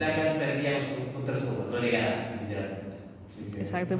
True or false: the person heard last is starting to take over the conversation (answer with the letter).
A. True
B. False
A